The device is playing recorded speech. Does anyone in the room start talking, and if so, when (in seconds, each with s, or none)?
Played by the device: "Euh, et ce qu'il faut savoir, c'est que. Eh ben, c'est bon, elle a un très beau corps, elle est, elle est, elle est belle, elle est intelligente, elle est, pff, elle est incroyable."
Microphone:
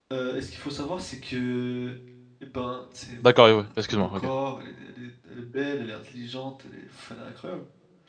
3.2 s